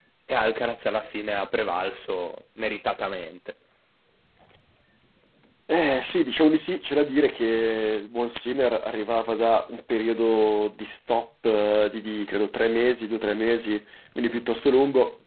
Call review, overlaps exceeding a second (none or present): none